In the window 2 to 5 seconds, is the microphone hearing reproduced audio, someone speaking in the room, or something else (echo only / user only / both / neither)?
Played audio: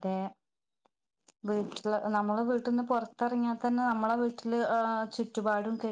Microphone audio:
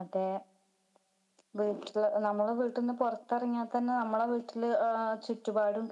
echo only